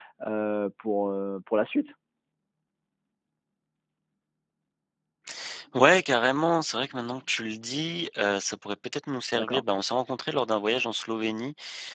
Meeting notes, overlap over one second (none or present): none